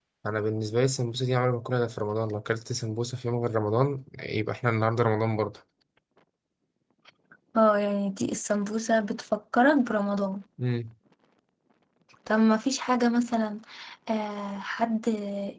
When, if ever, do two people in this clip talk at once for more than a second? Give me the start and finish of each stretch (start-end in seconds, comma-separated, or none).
none